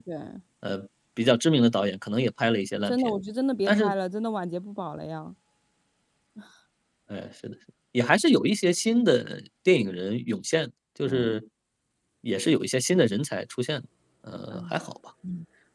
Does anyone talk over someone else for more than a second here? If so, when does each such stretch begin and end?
none

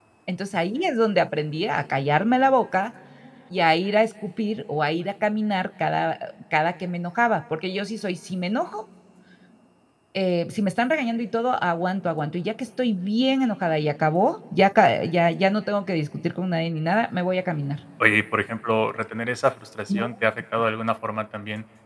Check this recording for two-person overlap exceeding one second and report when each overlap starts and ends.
none

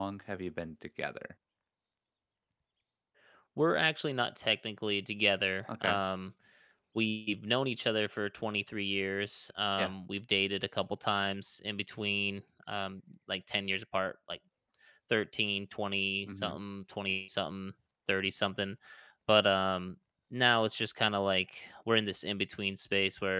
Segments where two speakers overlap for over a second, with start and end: none

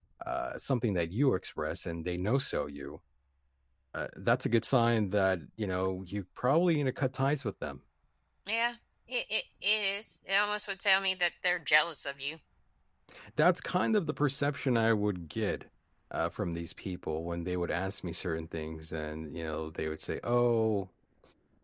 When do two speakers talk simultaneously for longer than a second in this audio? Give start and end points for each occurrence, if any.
none

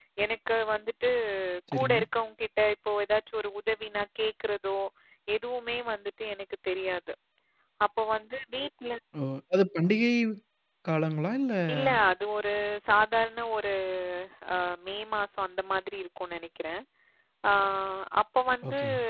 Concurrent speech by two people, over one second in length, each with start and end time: none

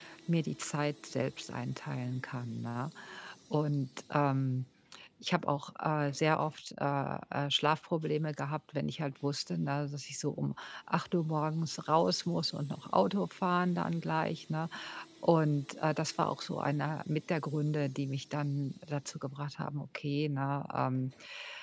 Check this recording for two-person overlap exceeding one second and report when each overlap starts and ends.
none

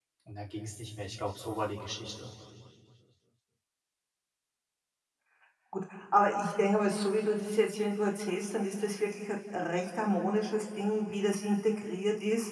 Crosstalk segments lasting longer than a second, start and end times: none

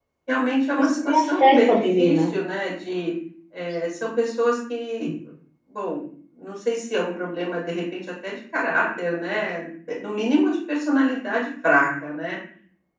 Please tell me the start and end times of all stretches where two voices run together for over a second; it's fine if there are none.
0.8-2.2

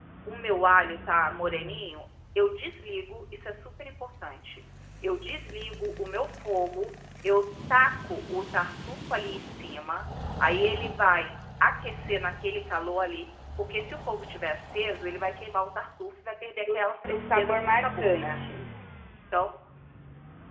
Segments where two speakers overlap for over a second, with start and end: 16.7-18.3

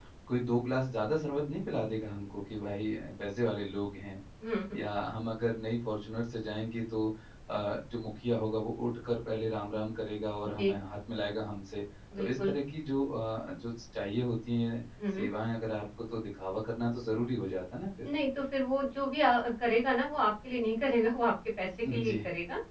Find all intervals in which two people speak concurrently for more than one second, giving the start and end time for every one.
none

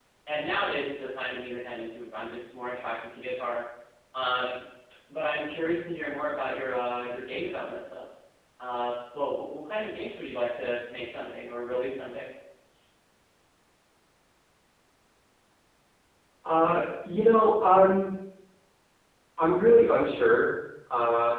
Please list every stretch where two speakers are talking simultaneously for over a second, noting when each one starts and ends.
none

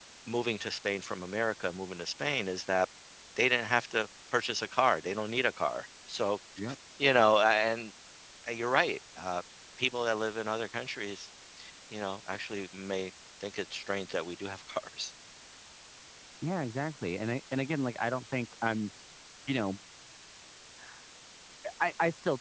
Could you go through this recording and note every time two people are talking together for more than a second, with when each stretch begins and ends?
none

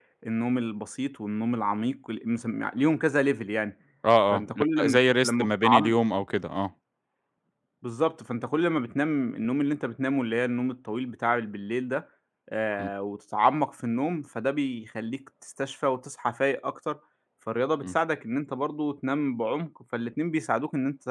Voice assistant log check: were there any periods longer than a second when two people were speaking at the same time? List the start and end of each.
4.3-5.9

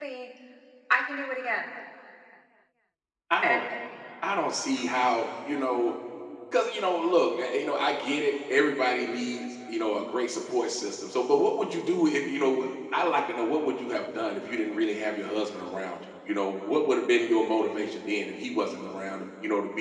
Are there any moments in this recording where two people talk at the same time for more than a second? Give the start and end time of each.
none

